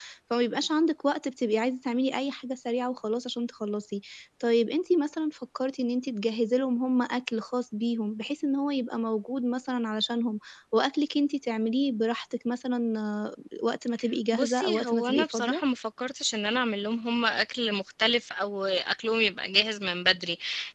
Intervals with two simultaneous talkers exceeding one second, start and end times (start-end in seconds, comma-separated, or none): 14.3-15.6